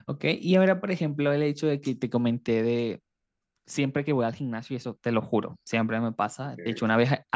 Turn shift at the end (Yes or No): No